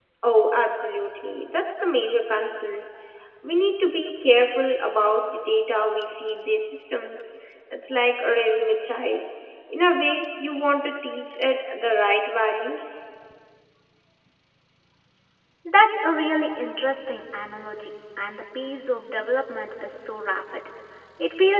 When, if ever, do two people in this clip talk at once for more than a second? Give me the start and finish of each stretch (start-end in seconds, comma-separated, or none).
none